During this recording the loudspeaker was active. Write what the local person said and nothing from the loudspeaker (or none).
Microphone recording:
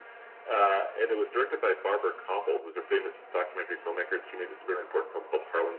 none